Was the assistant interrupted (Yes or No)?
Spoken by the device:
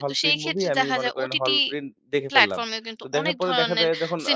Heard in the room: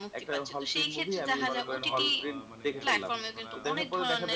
Yes